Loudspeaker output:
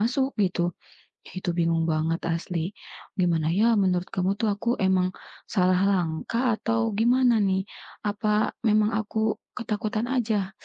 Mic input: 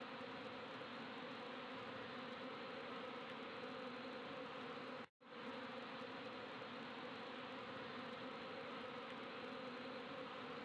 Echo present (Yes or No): No